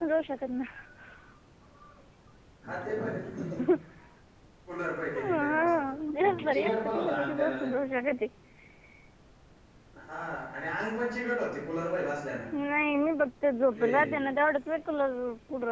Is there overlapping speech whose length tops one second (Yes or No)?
Yes